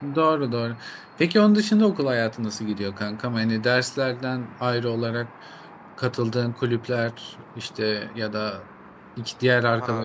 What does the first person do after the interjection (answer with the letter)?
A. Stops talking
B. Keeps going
A